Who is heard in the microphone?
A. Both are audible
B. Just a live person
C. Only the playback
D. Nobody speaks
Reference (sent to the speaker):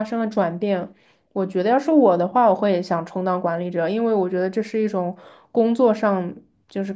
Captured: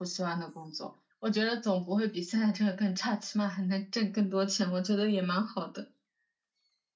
B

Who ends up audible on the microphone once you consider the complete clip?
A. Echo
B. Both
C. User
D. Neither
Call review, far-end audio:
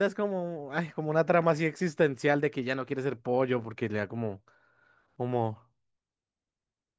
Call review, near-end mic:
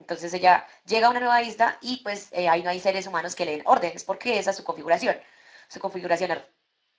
C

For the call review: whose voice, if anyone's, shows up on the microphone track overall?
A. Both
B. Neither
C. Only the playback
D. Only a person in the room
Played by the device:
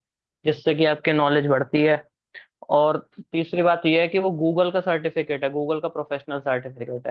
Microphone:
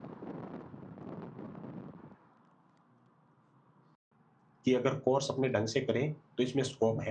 D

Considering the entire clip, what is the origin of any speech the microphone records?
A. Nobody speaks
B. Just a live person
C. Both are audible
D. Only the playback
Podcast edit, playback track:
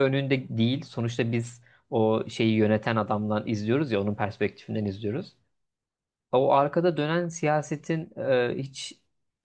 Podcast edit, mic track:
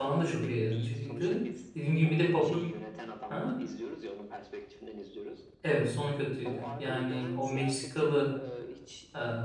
C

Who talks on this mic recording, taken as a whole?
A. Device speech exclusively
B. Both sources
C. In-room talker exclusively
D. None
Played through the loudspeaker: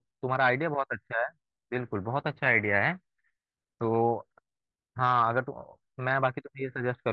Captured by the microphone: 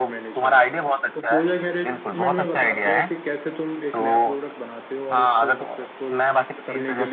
B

